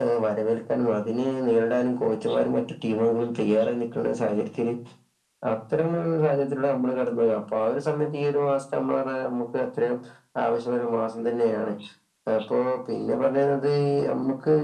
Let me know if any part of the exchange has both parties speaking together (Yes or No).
No